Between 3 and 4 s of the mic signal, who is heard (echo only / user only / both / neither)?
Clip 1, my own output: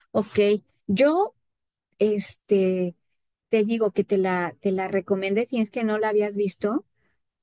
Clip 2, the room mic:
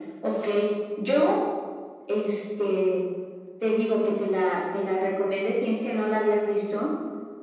echo only